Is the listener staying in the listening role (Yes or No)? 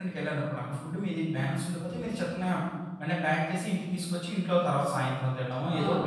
No